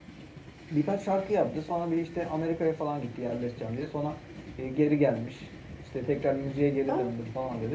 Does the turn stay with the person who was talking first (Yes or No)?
Yes